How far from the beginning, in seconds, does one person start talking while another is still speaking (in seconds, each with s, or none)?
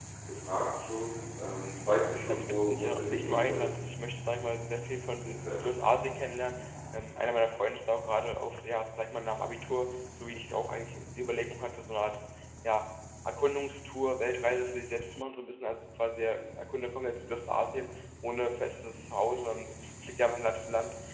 2.3 s